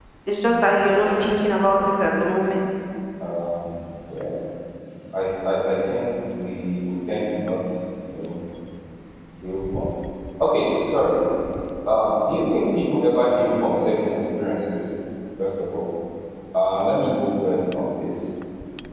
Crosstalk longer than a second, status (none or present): present